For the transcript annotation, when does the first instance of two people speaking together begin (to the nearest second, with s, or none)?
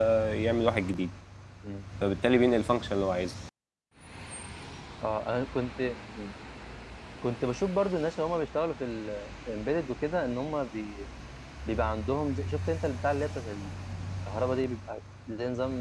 none